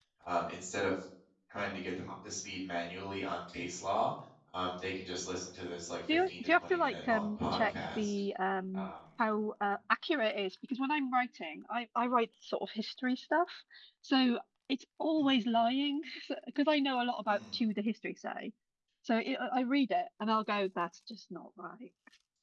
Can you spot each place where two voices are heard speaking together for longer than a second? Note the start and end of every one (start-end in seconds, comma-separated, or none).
6.3-8.2